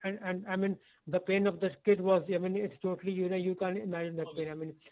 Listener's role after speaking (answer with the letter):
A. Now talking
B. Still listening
B